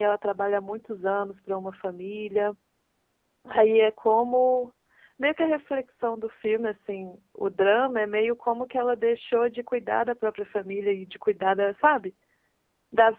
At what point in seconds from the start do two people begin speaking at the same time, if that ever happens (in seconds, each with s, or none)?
none